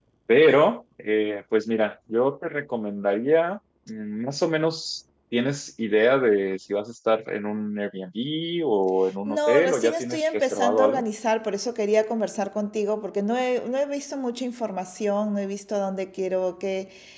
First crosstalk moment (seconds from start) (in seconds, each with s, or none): 9.3 s